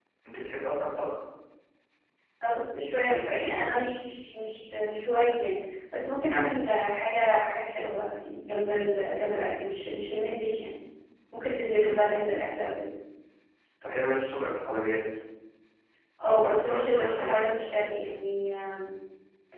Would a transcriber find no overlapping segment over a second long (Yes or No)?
No